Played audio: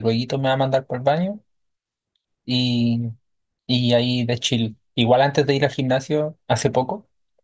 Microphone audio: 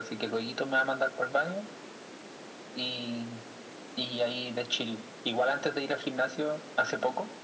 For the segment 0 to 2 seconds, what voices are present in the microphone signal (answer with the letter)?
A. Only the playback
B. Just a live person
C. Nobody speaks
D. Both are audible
A